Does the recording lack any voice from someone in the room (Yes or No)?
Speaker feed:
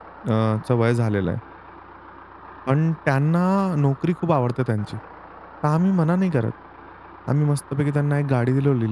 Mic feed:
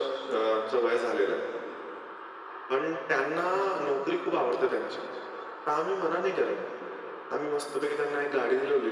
Yes